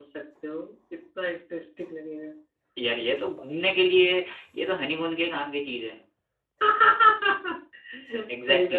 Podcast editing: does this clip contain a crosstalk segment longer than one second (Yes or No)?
No